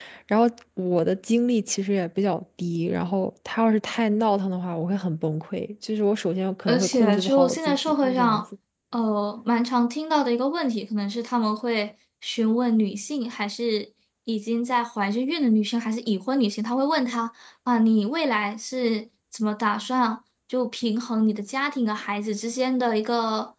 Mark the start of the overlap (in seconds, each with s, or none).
6.7 s